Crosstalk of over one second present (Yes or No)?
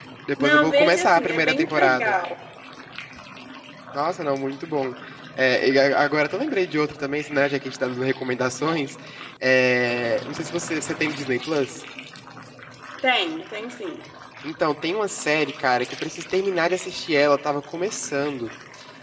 Yes